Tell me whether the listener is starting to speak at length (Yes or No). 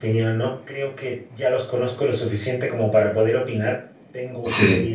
No